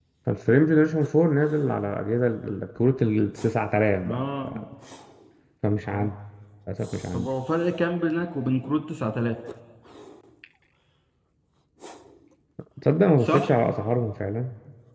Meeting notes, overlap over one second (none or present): none